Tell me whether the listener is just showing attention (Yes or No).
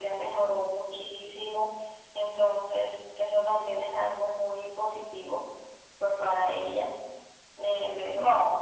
Yes